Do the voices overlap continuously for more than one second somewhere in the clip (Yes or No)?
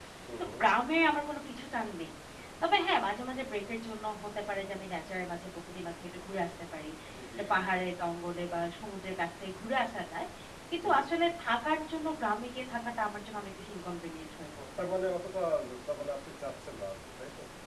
No